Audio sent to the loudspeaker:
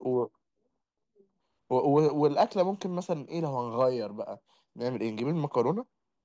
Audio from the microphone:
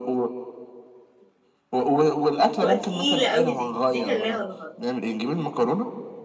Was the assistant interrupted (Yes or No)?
Yes